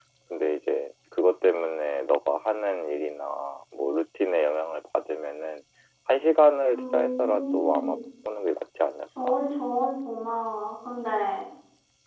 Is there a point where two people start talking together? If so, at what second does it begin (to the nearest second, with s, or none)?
7 s